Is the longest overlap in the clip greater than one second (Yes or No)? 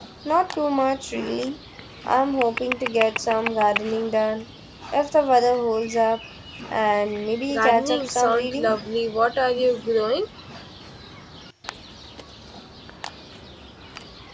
Yes